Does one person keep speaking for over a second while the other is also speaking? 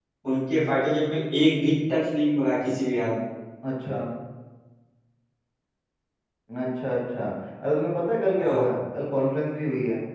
No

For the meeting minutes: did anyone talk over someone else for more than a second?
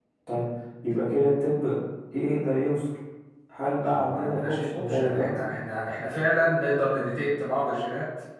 Yes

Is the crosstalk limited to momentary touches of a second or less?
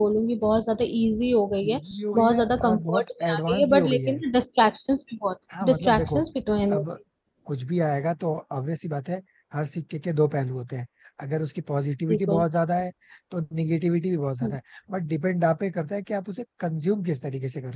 No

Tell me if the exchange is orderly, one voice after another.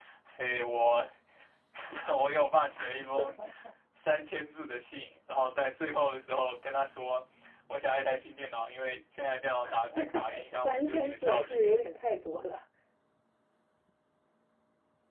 No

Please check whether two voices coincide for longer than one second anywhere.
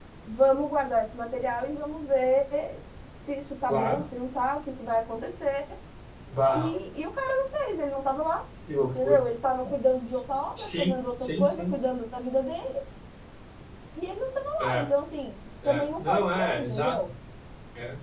Yes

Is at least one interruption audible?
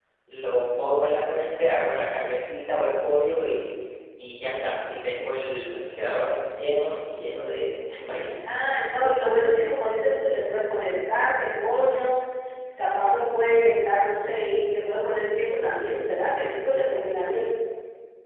No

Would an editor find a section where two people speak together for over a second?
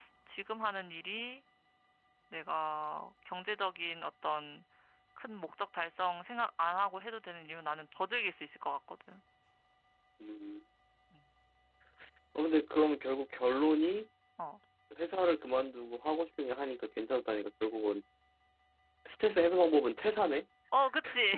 No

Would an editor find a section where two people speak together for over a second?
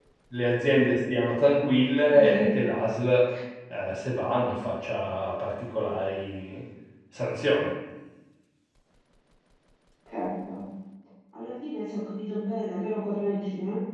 No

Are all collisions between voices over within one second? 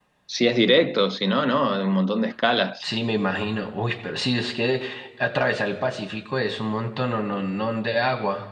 Yes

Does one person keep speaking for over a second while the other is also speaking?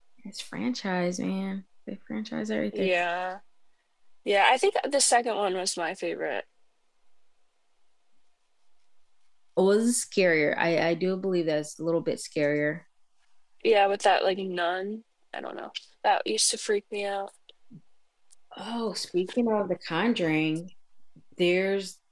No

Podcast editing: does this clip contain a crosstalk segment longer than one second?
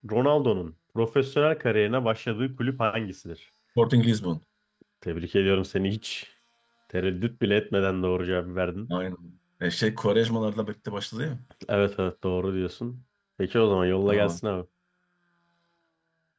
No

